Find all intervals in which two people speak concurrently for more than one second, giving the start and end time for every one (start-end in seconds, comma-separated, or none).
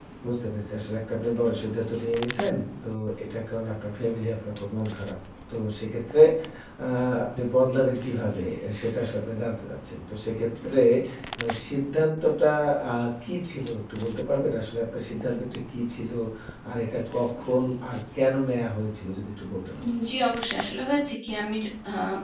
none